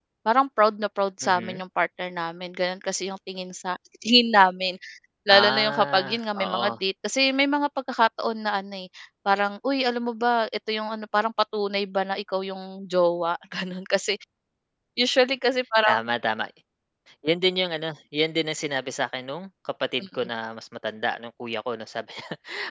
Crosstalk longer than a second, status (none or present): present